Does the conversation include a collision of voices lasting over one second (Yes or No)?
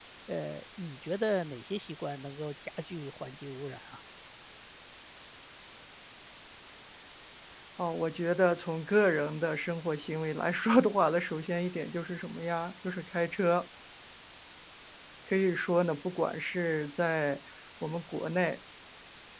No